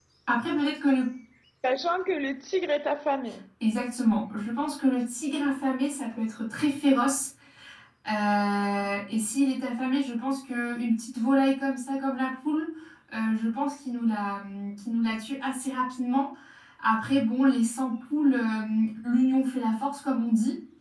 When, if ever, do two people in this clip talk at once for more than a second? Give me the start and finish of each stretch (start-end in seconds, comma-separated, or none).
none